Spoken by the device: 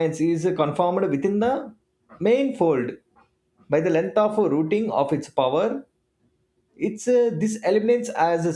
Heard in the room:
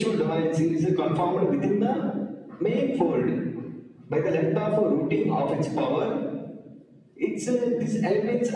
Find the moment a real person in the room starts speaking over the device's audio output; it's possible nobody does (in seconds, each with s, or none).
none